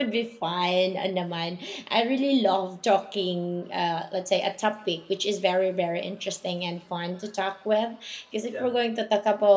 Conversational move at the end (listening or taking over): listening